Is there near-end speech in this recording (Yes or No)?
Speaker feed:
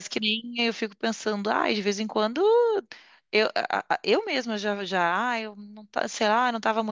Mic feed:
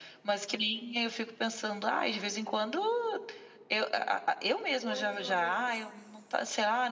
Yes